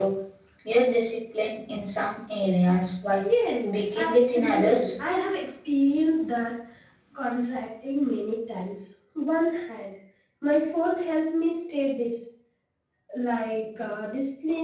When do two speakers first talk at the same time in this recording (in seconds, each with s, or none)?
3.6 s